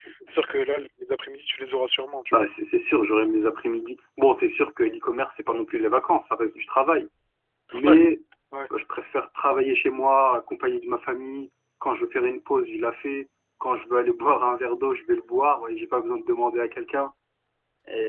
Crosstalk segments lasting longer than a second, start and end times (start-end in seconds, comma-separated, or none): none